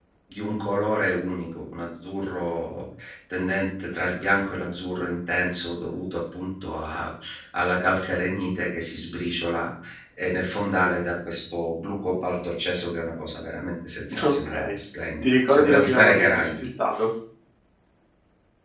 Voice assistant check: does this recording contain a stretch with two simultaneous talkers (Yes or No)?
Yes